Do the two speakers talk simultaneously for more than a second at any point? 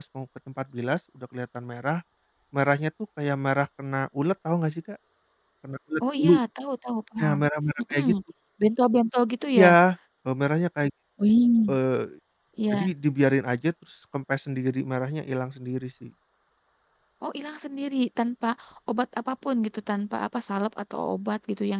No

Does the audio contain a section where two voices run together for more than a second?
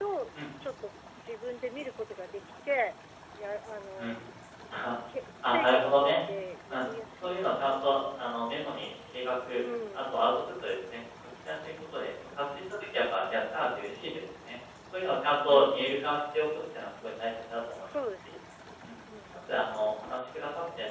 Yes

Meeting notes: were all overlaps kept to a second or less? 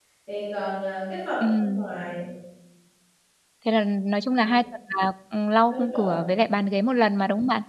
Yes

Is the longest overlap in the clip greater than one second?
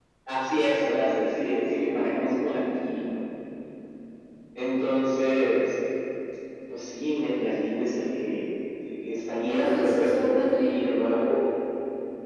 Yes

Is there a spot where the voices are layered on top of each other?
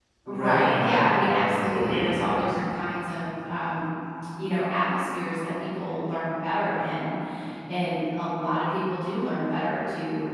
Yes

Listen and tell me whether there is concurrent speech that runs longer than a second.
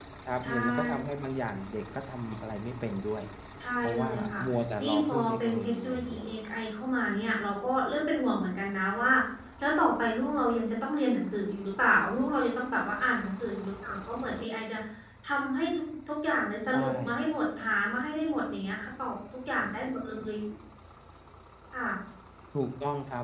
Yes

